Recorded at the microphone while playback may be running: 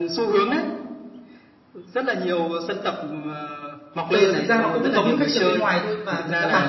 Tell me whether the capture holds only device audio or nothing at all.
No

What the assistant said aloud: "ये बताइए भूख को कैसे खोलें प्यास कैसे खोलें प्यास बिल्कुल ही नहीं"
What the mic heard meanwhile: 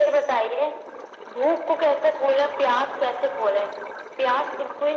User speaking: No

